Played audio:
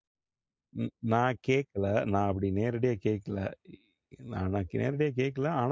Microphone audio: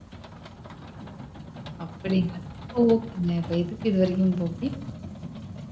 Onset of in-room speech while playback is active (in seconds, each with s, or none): 1.8 s